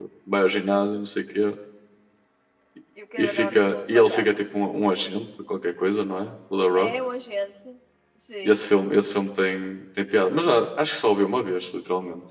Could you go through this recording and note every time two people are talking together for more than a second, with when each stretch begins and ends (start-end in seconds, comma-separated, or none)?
3.2-4.4